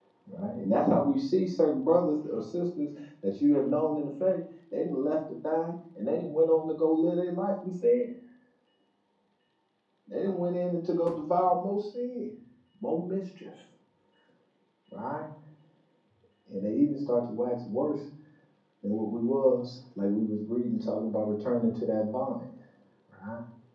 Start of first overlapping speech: none

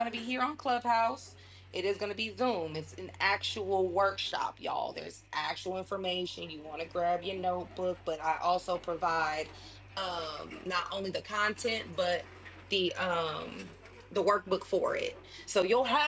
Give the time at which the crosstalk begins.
none

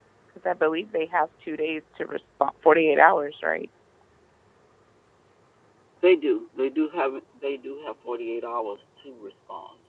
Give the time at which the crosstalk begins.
none

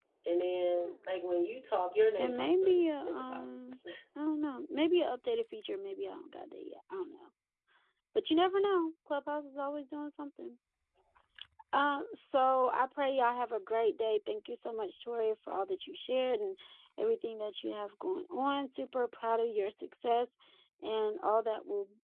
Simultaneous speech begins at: 2 s

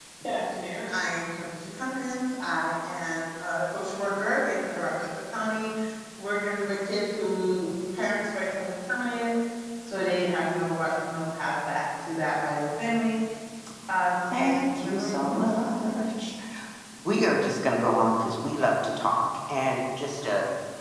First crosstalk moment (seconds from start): 14 s

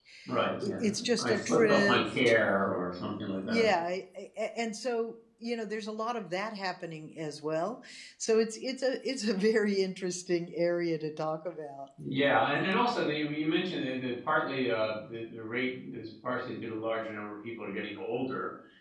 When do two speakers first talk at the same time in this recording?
1 s

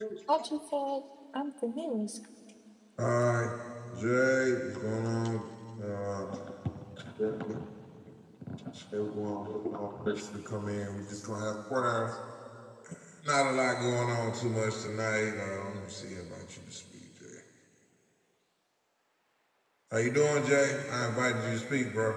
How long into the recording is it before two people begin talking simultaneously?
none

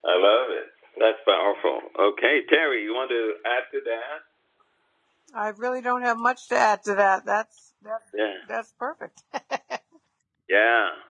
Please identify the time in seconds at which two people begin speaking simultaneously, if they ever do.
none

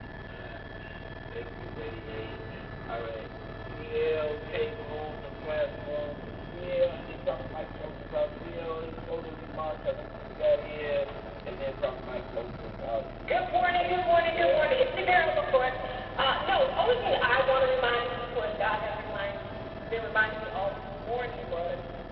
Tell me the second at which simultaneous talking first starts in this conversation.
13 s

